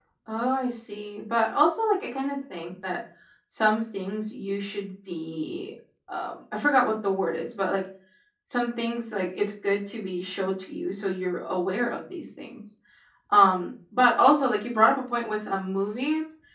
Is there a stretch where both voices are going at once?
No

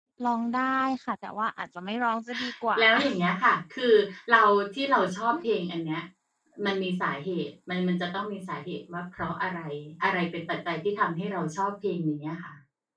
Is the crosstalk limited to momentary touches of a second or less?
Yes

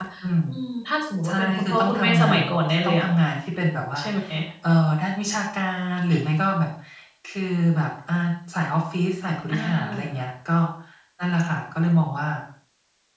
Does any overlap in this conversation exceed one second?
Yes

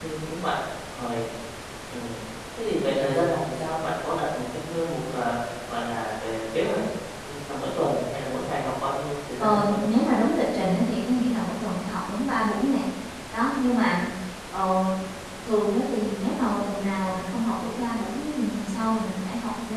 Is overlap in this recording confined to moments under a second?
Yes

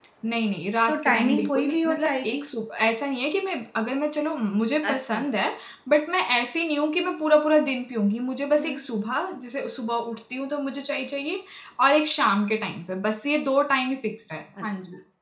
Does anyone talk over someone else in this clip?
Yes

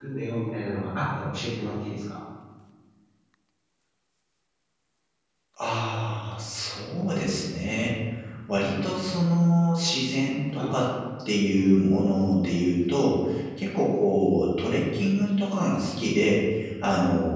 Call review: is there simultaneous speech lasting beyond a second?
No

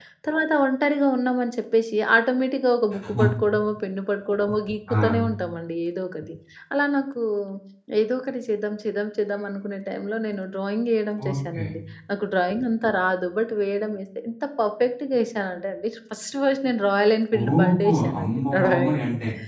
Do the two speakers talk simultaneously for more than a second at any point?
Yes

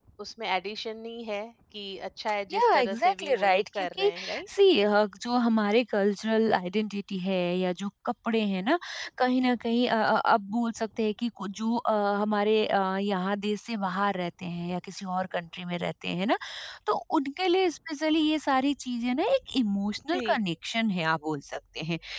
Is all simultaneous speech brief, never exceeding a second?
No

